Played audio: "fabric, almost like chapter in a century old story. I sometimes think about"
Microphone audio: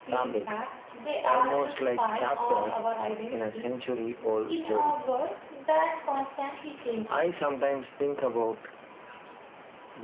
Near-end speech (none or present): present